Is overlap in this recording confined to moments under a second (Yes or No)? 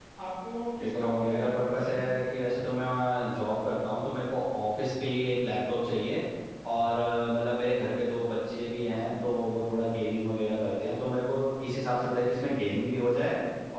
No